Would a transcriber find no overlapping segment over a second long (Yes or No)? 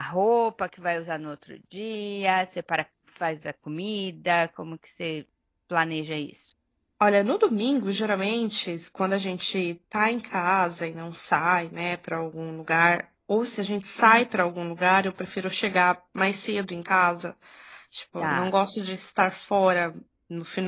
Yes